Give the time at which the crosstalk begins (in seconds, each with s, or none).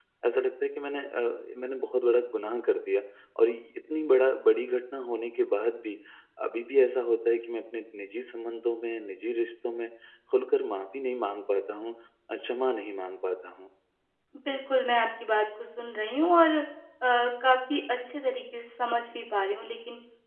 none